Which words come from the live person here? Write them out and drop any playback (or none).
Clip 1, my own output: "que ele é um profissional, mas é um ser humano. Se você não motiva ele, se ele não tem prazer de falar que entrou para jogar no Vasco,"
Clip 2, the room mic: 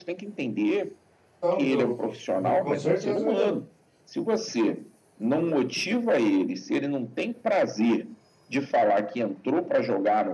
Não, melhorou. Com, com certeza melhorou.